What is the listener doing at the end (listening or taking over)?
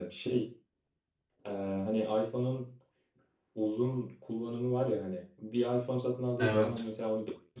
listening